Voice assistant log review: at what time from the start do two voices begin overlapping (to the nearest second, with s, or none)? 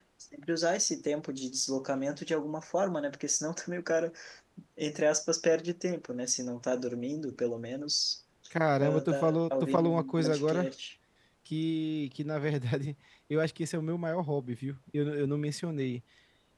9 s